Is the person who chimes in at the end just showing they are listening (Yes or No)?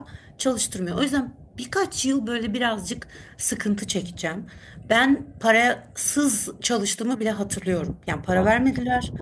Yes